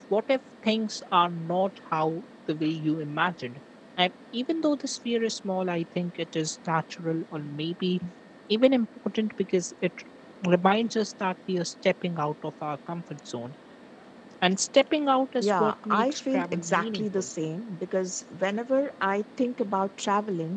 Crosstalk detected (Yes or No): Yes